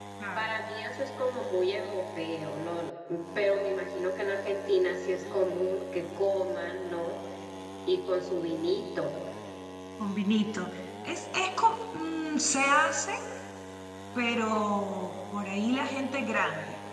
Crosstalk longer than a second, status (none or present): none